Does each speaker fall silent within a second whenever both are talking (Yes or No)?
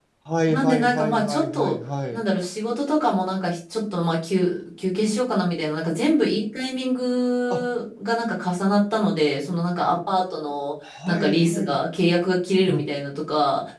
No